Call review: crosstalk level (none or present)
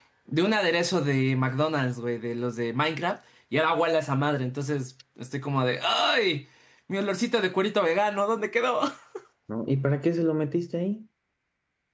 none